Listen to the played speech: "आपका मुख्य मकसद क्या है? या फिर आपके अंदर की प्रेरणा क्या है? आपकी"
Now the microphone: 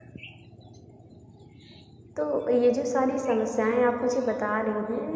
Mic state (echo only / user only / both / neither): user only